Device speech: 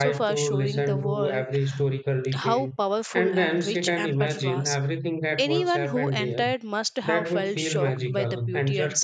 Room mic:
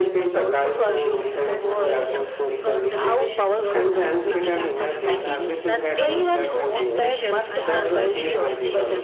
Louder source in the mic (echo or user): echo